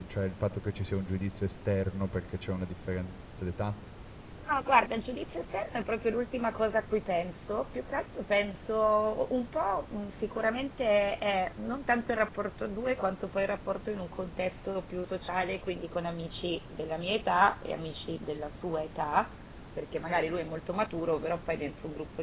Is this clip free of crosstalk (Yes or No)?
Yes